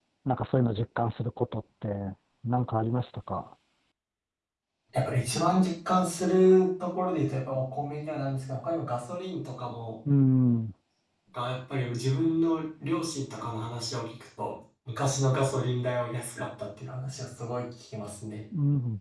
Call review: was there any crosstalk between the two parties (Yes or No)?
No